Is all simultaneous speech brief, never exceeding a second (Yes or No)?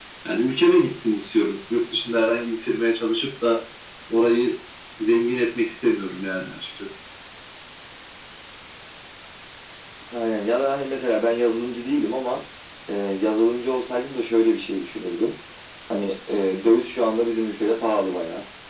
Yes